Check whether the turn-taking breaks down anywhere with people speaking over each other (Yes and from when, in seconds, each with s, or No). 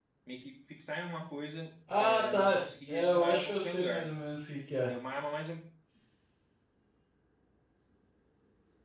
Yes, from 1.9 s